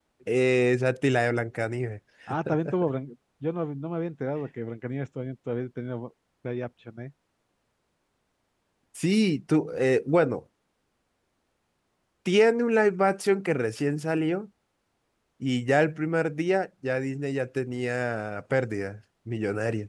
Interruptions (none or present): none